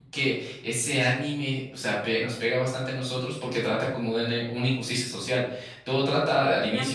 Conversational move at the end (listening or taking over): listening